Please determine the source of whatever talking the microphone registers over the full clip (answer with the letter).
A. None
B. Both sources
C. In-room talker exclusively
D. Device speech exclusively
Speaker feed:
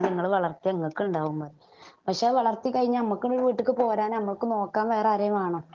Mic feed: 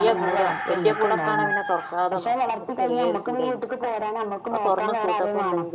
B